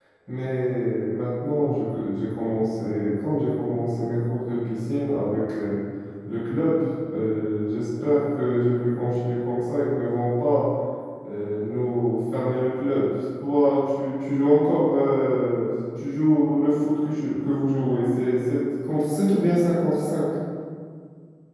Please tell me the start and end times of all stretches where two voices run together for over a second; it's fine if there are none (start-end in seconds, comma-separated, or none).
none